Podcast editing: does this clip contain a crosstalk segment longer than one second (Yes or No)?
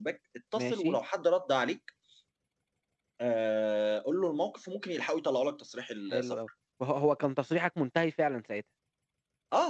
No